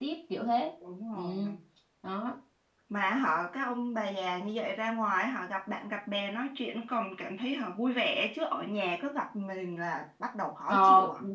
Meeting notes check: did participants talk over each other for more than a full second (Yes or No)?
No